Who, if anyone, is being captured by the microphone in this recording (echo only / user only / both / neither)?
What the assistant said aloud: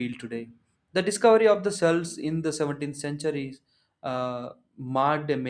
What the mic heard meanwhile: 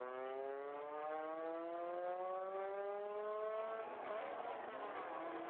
neither